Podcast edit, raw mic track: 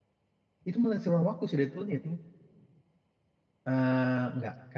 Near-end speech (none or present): present